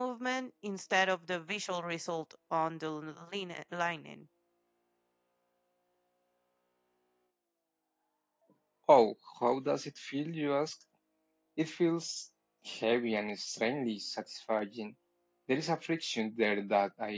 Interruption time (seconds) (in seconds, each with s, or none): none